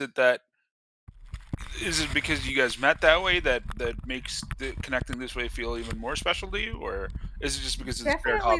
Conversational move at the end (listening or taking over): taking over